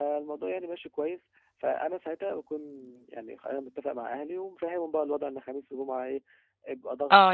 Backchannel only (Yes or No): No